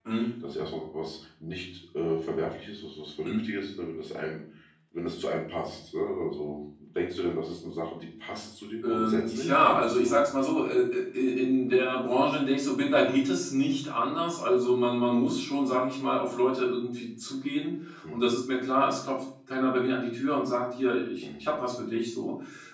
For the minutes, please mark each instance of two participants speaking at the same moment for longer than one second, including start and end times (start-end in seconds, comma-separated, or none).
8.8-10.2